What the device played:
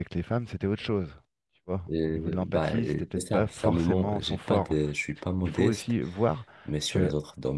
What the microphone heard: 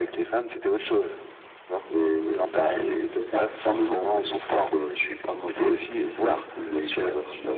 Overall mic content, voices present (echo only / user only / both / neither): both